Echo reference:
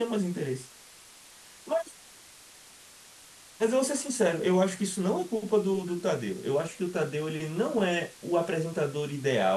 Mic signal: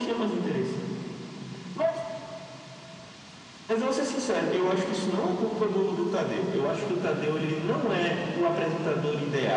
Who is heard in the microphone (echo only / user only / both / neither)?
echo only